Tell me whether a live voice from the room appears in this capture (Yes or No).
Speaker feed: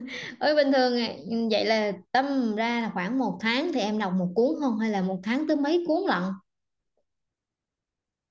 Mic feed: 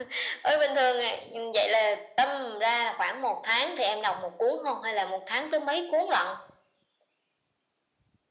No